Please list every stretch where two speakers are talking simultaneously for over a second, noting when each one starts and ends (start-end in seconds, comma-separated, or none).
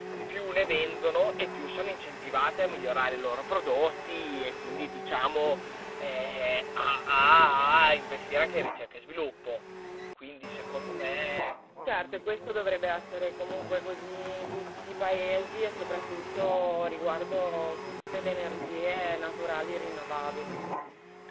none